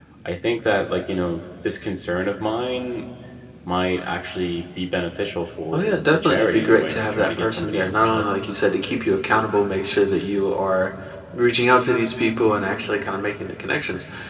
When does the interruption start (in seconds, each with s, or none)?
5.7 s